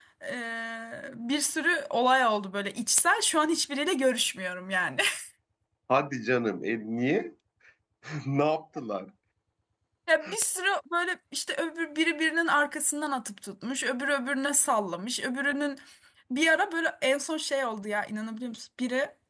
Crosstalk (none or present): none